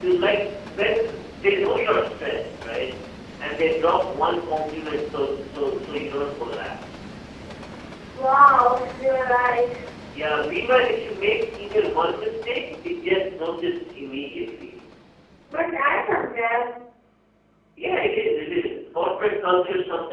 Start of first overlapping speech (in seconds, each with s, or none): none